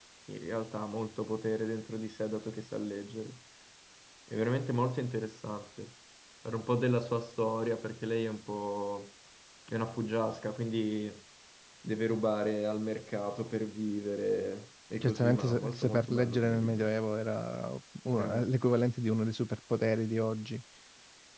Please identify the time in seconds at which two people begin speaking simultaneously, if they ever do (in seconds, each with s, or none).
15.0 s